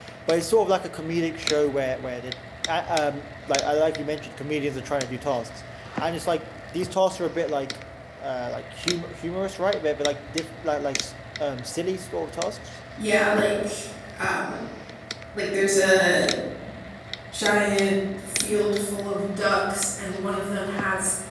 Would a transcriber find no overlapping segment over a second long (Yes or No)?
Yes